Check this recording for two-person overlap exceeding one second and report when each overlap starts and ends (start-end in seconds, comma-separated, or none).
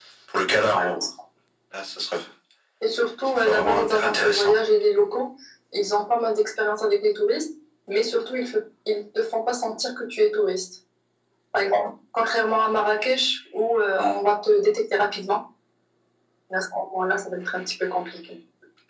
3.5-4.7